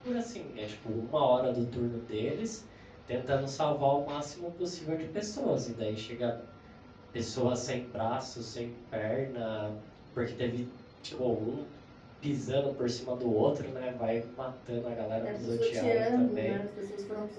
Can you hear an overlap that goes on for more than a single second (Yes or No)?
Yes